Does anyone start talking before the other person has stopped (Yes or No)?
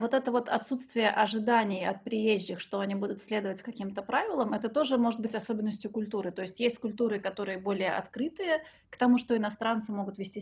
No